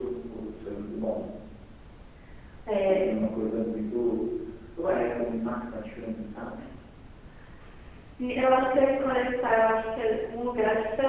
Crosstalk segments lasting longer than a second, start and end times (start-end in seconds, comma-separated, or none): none